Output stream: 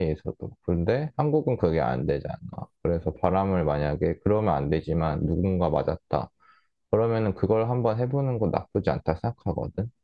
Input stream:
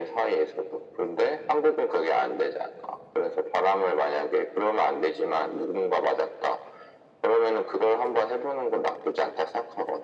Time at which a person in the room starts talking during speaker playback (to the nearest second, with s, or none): none